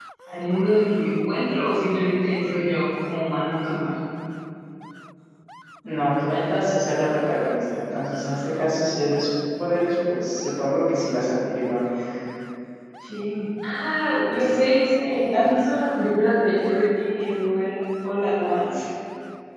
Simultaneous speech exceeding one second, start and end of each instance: none

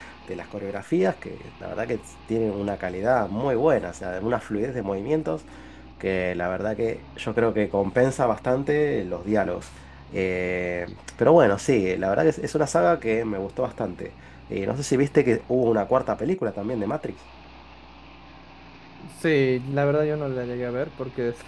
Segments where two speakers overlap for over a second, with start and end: none

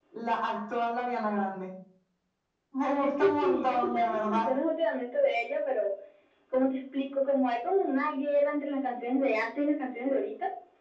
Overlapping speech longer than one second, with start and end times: 3.0-4.5

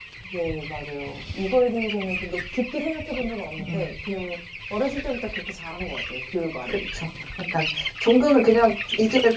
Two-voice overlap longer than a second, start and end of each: none

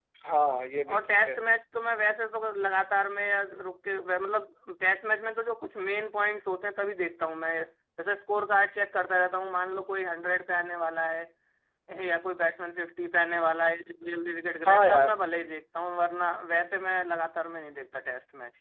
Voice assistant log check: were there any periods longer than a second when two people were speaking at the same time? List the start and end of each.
none

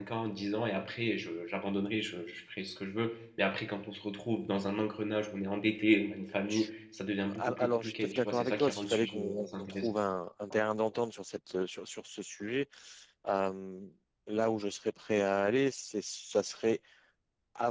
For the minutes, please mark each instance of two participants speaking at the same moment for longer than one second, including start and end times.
7.3-9.9

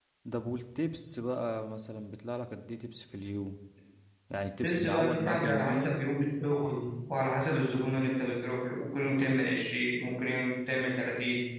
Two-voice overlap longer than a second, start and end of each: 4.6-6.0

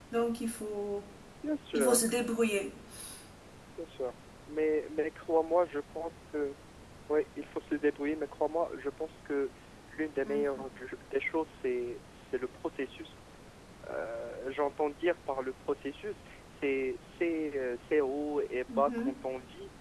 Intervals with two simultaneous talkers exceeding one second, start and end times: none

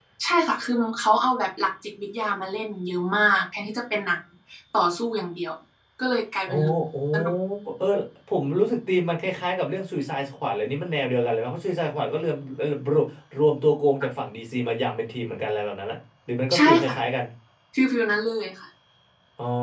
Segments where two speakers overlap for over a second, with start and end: none

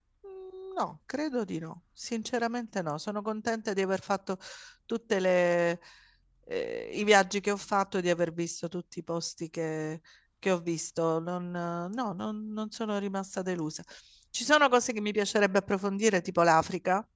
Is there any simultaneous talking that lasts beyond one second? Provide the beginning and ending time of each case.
none

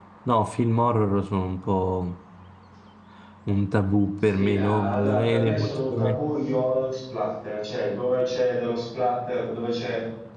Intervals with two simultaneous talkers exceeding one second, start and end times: 4.2-6.2

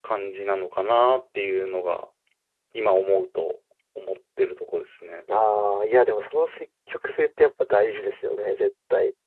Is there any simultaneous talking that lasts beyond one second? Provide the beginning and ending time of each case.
none

